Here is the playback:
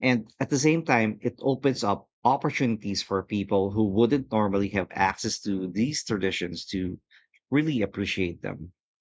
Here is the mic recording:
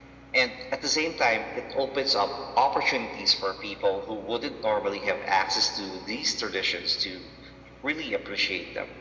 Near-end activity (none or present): none